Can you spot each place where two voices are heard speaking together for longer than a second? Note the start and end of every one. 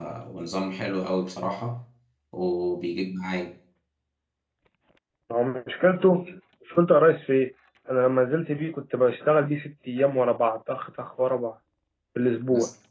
none

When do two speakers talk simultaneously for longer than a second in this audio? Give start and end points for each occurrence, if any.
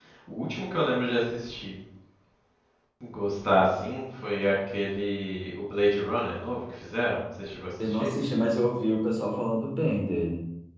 none

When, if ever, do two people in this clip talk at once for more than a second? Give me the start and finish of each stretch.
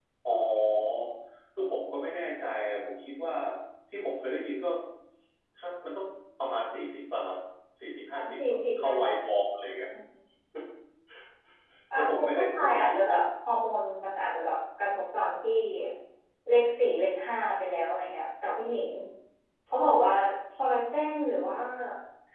12.0-13.2

